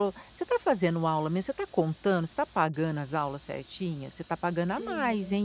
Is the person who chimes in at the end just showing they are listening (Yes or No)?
Yes